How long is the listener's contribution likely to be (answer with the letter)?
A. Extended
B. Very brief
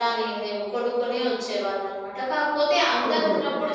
B